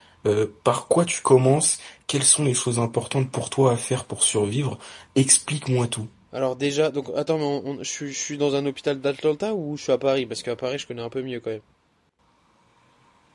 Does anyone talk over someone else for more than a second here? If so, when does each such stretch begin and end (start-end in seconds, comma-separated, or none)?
none